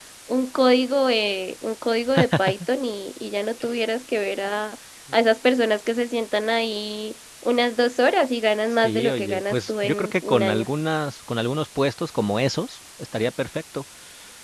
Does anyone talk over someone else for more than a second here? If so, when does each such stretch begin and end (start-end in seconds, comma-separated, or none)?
8.8-10.7